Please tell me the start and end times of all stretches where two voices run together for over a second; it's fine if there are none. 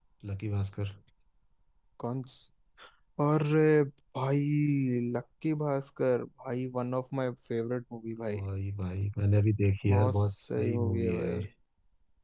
9.9-11.4

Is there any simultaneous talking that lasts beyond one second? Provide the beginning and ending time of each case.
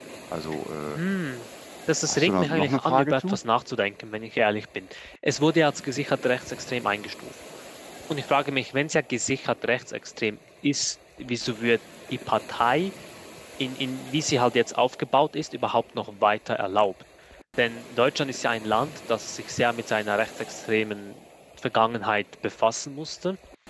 2.1-3.4

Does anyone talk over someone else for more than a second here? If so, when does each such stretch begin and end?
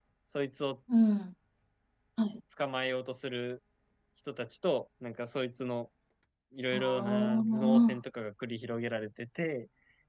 6.7-8.0

